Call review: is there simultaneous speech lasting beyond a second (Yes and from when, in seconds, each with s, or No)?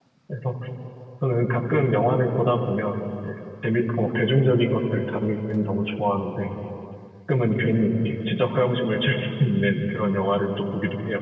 No